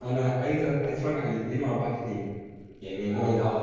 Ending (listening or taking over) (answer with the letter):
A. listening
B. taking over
A